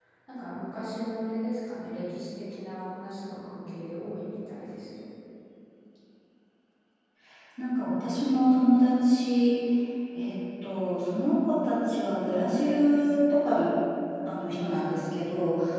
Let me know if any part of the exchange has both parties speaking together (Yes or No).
No